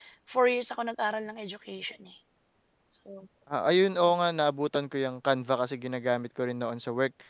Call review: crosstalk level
none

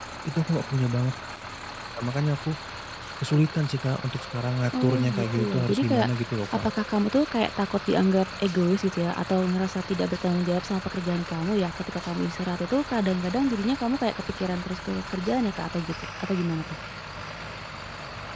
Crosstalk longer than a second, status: present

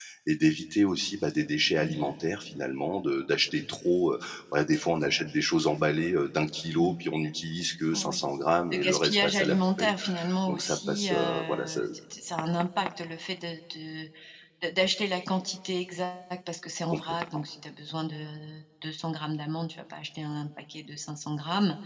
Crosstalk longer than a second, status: present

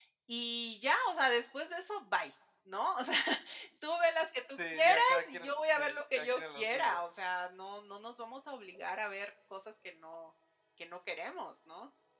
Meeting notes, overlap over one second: present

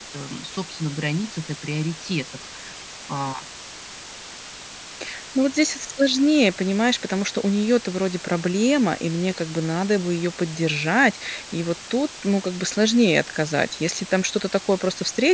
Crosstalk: none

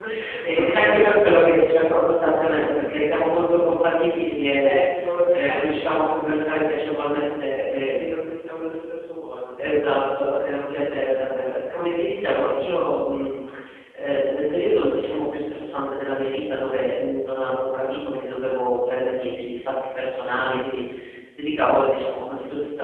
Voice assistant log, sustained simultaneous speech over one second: present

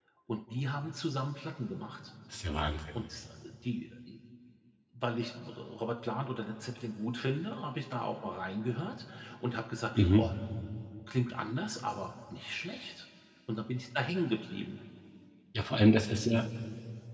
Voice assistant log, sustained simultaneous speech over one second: none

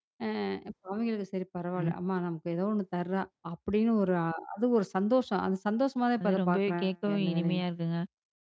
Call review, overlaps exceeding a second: present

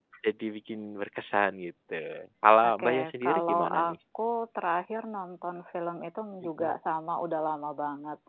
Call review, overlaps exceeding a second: present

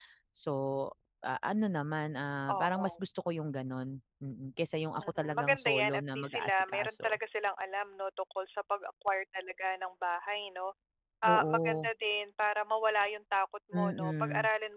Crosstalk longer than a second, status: present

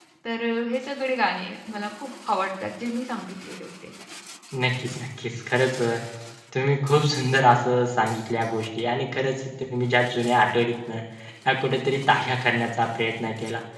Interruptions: none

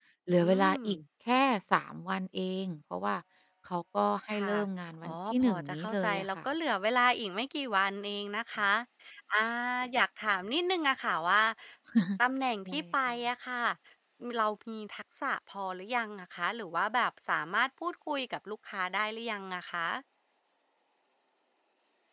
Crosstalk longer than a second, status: present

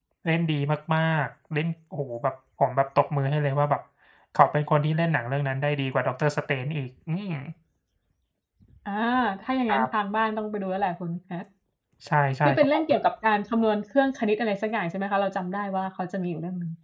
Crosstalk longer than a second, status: none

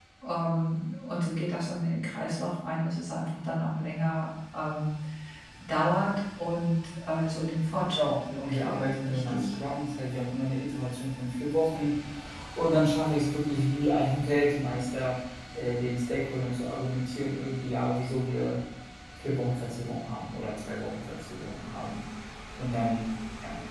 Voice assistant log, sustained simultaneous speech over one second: present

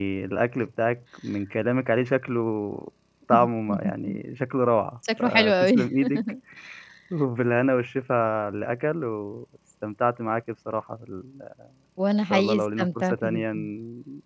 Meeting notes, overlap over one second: present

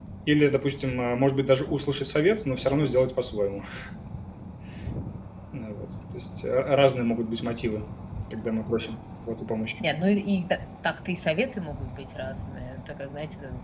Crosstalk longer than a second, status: none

